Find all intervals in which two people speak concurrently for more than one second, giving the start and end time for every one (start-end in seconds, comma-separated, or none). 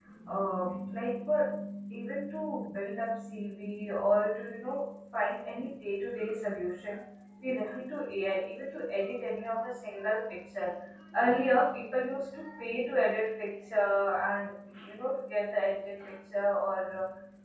none